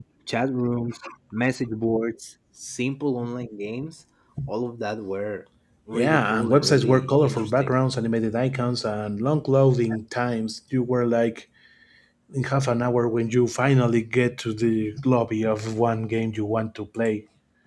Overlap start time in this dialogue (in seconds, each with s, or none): 5.9 s